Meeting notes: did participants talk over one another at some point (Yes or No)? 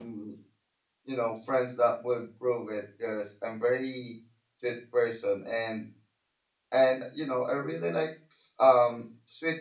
No